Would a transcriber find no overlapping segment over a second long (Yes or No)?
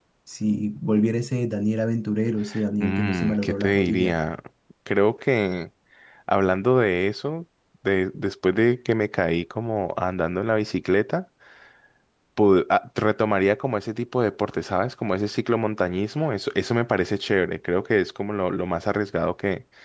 No